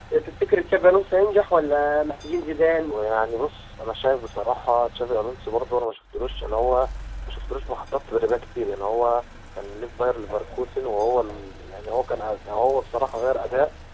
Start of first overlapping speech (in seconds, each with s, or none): none